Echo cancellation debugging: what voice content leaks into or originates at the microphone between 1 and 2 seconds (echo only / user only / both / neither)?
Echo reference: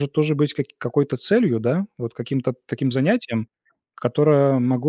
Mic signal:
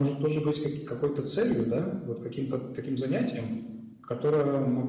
echo only